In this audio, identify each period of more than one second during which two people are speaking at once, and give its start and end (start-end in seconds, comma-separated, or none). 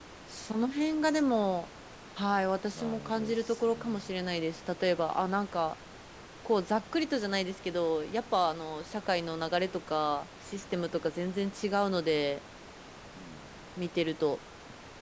2.8-4.1